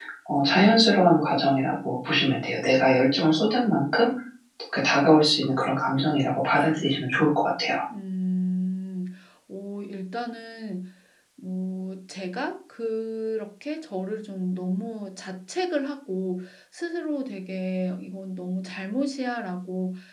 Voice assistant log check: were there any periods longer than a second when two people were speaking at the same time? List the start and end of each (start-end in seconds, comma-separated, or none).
none